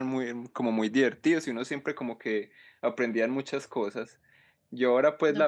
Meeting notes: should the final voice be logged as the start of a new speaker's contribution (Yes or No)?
No